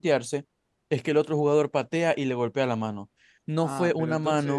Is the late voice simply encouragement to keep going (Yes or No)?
No